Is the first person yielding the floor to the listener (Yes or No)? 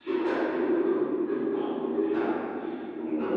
No